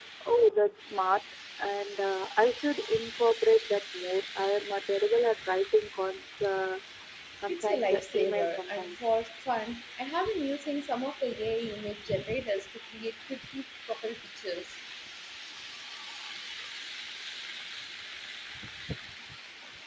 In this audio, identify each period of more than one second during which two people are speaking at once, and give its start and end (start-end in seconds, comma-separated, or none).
7.5-8.9